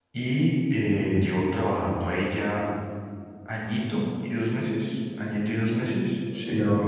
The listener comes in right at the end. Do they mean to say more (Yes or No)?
Yes